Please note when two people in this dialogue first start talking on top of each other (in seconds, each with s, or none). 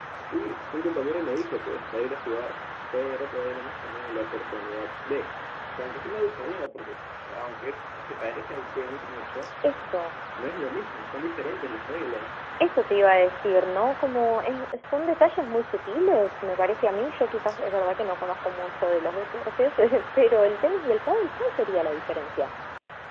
none